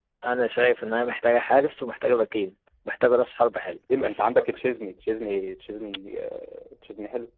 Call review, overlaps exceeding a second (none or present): none